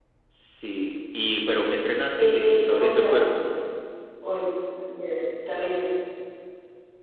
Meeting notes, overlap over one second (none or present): present